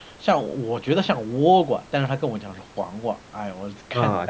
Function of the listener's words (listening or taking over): taking over